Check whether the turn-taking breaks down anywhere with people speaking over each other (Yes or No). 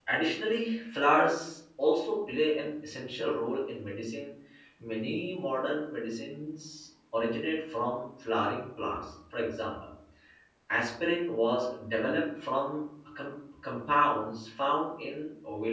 No